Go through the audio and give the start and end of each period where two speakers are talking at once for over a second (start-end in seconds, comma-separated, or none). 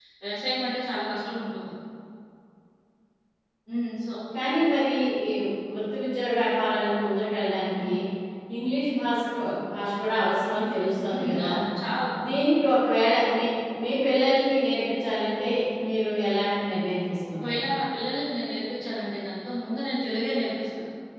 none